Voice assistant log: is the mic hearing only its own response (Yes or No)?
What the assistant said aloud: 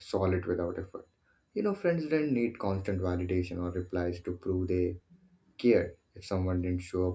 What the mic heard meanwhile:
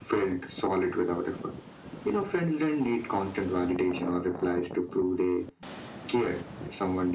Yes